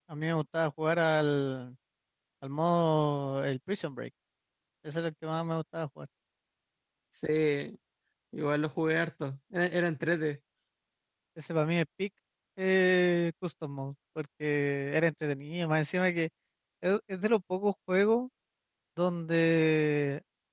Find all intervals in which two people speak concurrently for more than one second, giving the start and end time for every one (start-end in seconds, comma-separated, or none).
none